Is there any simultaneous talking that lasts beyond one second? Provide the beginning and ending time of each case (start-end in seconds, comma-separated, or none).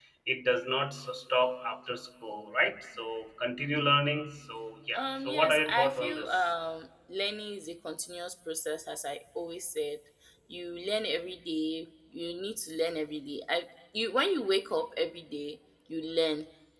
4.9-6.3